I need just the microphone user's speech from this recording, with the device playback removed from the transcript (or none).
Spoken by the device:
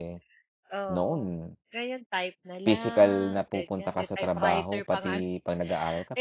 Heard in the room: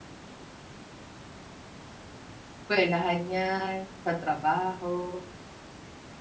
eskwelahan ‘yan, sa trabaho,